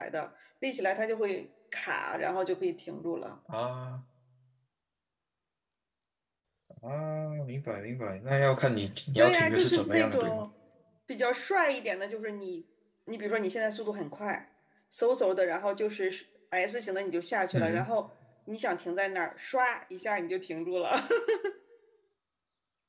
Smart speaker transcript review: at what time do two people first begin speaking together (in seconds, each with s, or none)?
9.2 s